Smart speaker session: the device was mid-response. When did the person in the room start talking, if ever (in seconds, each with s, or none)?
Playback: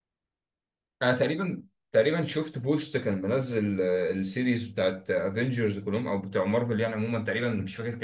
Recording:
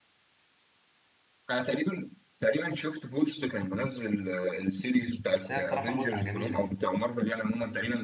5.3 s